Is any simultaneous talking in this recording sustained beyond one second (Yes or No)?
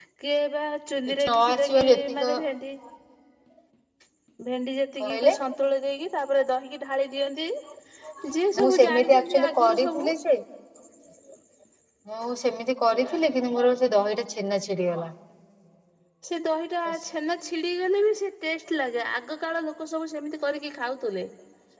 Yes